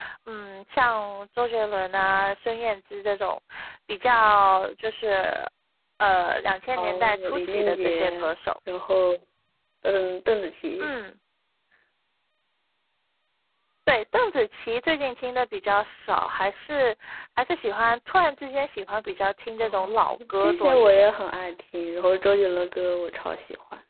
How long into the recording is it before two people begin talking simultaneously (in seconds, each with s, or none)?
6.8 s